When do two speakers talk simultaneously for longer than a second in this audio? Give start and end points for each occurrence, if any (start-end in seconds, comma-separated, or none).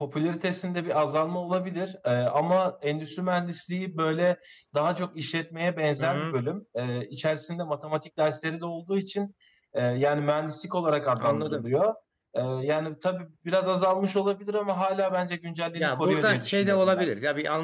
15.7-17.1